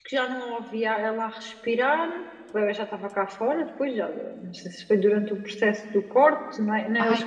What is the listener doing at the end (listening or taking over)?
listening